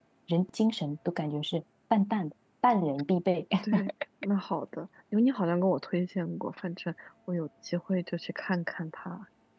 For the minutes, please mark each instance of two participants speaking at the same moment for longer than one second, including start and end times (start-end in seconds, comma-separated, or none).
none